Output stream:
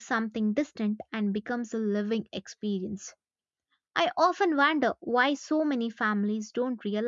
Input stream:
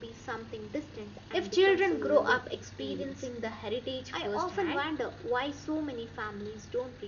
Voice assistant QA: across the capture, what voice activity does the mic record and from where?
both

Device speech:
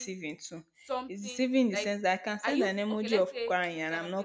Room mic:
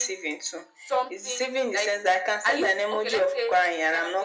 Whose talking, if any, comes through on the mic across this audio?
echo only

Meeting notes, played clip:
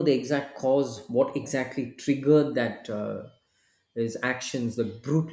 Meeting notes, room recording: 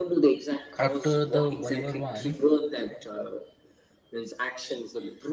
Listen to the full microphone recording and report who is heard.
both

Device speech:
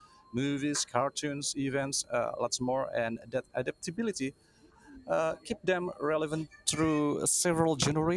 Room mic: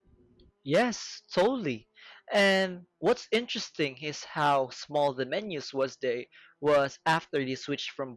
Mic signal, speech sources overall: user only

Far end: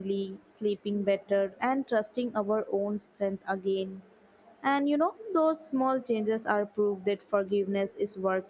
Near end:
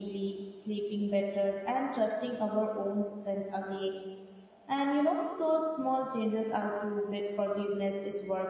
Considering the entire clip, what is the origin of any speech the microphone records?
echo only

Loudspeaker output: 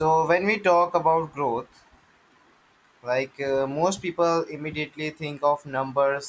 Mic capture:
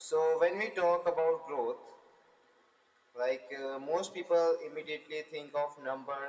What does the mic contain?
echo only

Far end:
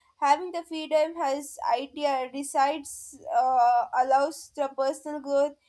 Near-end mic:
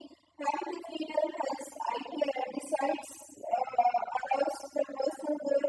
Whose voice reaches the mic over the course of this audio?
echo only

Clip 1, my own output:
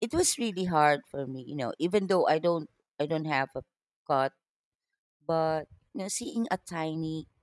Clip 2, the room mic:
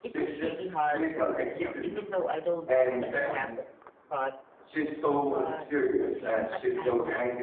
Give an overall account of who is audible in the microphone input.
both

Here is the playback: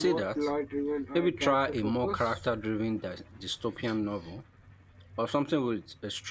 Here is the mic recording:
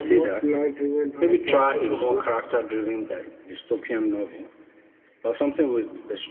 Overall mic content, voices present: echo only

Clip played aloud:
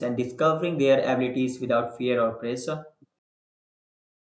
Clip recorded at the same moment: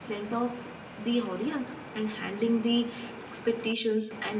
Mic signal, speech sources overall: user only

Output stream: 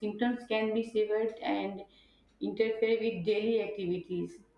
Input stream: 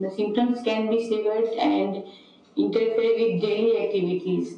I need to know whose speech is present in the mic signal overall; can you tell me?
echo only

